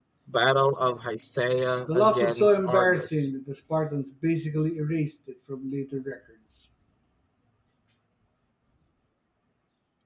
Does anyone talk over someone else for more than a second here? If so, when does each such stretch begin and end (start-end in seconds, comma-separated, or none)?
1.9-3.2